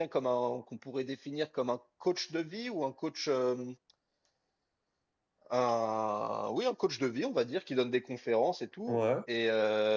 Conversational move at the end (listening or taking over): listening